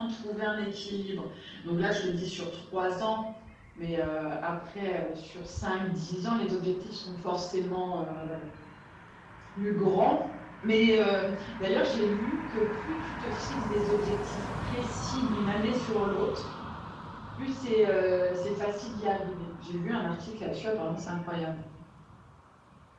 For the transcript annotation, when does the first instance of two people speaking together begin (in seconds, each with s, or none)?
none